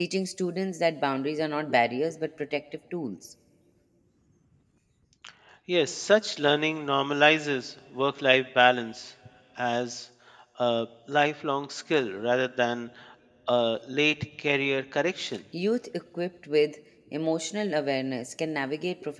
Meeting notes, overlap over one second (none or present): none